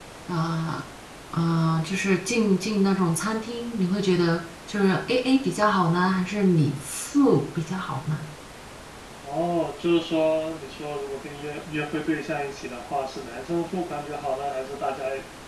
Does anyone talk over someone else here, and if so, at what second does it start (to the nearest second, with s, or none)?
none